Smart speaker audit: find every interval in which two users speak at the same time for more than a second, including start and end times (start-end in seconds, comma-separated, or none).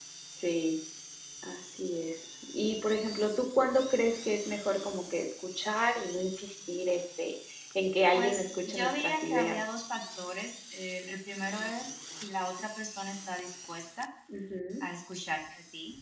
8.1-9.6